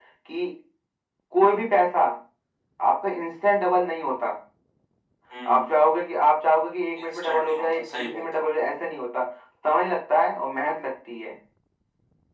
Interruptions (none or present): present